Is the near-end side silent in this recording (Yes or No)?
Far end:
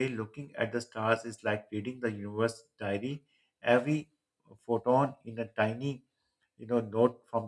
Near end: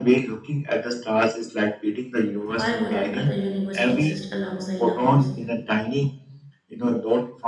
No